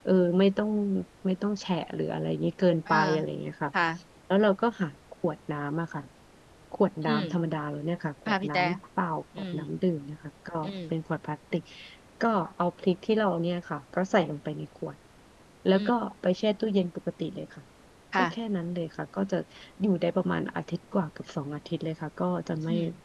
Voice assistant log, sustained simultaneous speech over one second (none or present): none